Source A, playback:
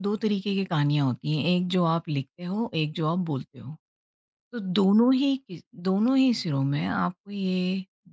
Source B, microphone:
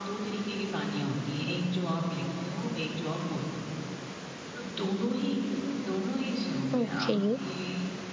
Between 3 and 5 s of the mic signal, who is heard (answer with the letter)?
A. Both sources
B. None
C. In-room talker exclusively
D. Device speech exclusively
D